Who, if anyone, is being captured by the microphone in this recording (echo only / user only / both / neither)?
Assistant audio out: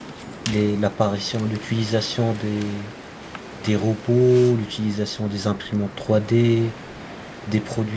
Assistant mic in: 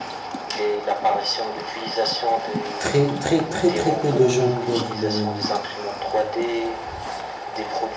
both